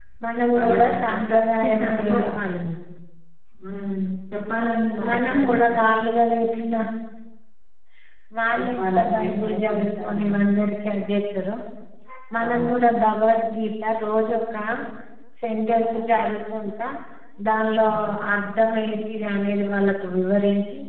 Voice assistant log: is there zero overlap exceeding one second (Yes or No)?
No